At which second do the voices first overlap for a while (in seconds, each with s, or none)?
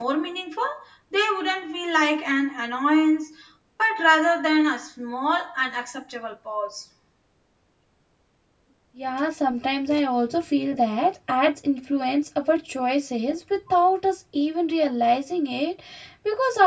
none